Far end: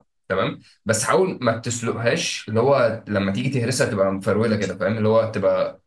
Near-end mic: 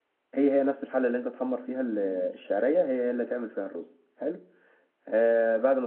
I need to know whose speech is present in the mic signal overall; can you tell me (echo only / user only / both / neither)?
user only